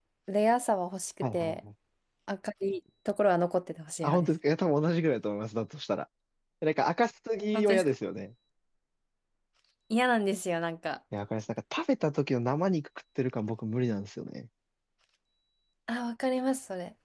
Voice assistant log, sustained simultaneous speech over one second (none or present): none